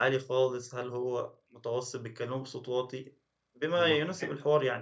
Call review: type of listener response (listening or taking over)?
listening